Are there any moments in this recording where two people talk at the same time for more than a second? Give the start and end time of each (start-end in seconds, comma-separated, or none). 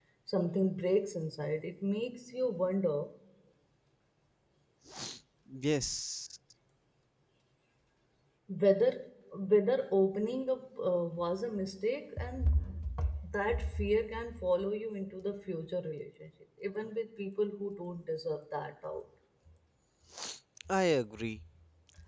none